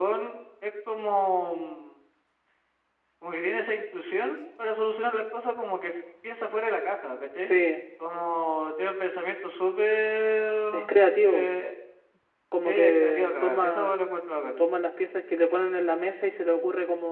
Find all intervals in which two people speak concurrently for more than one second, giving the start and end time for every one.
12.6-13.9

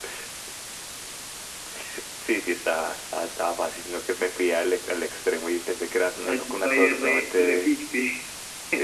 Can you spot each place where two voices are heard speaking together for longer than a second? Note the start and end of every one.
6.2-7.7

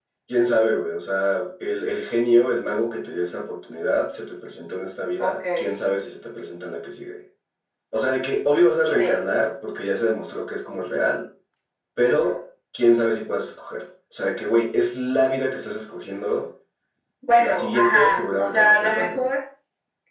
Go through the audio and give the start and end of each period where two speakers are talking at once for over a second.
17.4-19.3

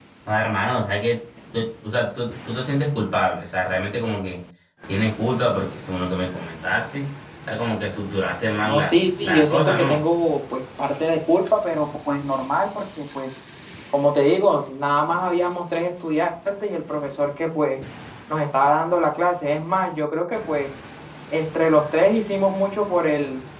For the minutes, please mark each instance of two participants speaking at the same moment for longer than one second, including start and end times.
8.6-10.0

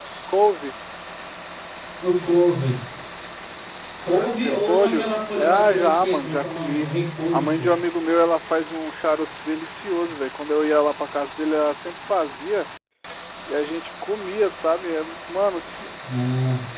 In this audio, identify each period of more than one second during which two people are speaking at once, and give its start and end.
4.3-6.9

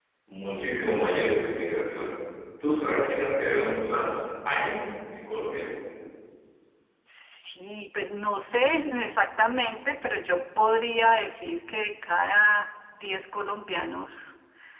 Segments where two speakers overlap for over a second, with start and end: none

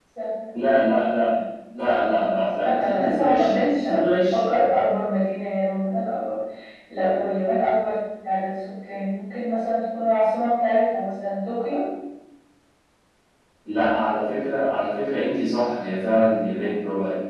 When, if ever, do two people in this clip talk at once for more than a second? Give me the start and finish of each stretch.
2.6-4.6

